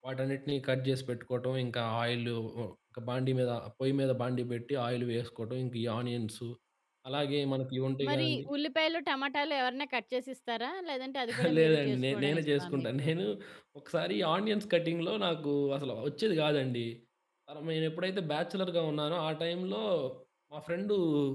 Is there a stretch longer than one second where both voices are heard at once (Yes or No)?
Yes